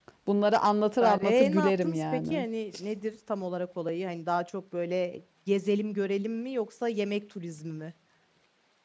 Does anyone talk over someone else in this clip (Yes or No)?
Yes